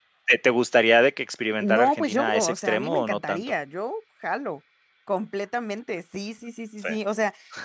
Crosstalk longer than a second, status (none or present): present